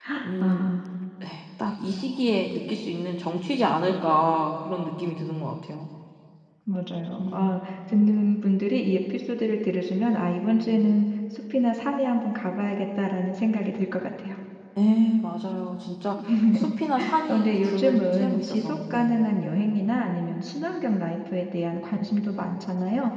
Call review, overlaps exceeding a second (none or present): present